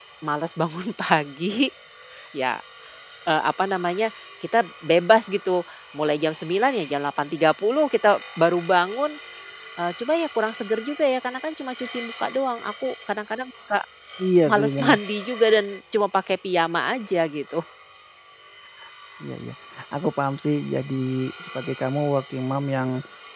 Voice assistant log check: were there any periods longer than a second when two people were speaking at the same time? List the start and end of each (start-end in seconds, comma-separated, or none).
none